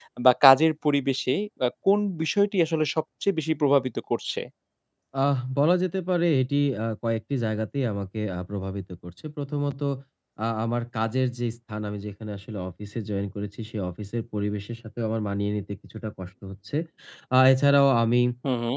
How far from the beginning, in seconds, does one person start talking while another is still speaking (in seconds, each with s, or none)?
none